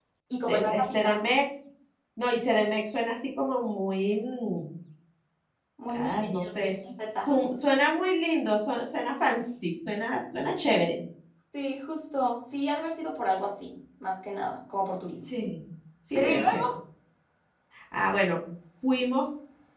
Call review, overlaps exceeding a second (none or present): present